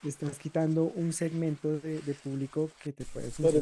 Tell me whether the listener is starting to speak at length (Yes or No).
Yes